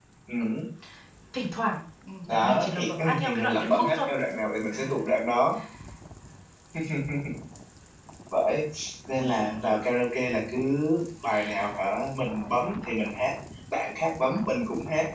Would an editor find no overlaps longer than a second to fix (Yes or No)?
No